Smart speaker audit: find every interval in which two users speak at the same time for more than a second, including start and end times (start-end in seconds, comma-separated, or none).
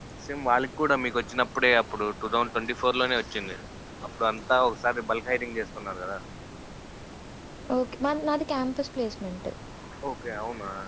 none